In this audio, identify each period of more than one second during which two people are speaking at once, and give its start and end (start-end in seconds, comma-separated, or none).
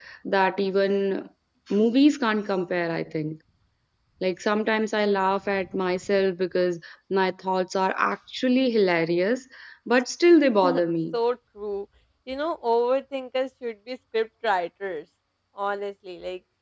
none